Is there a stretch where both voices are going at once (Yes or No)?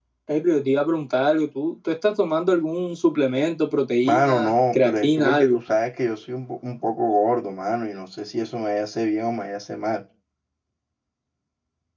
Yes